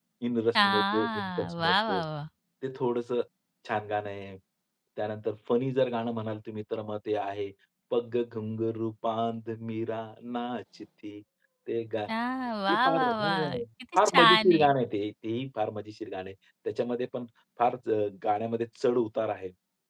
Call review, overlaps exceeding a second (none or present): present